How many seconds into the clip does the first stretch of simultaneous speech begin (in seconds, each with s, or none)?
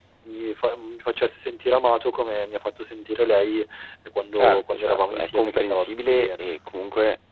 4.4 s